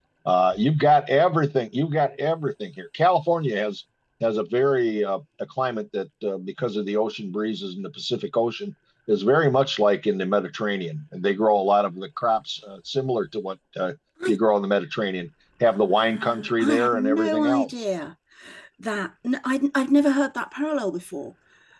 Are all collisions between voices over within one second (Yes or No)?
No